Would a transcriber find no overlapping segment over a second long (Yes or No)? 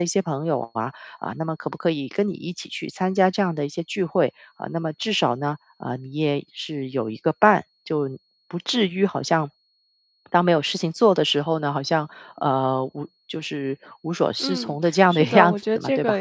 No